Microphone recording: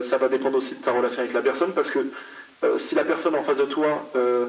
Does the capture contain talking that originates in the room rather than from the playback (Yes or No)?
No